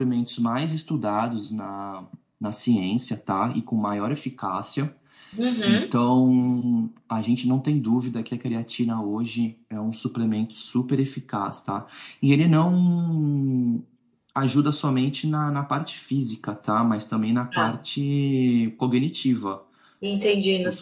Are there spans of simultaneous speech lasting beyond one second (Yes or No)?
No